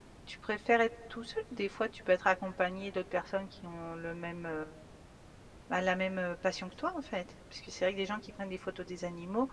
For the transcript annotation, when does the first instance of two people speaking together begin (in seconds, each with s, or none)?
none